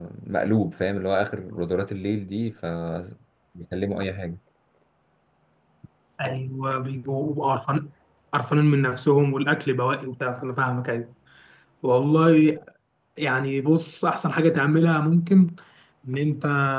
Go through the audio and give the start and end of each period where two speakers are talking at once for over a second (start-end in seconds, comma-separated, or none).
none